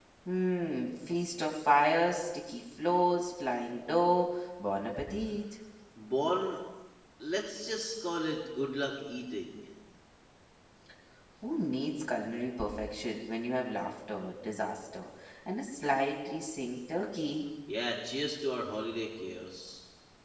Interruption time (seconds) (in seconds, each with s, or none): none